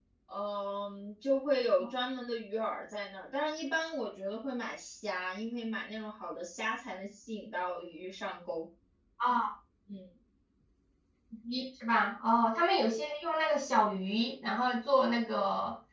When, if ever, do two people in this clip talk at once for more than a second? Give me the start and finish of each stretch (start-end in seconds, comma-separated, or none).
none